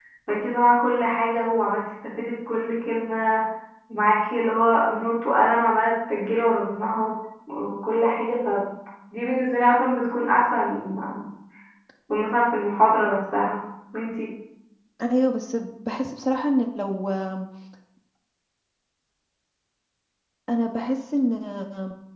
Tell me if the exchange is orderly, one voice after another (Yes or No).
Yes